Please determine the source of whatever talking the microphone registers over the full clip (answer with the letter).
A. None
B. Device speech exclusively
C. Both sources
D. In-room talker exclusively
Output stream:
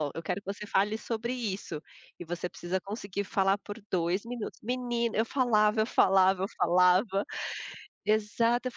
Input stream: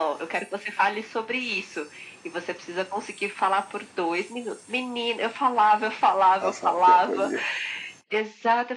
C